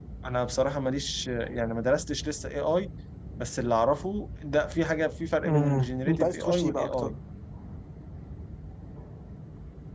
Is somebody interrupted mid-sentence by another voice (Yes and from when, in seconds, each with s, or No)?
Yes, from 5.4 s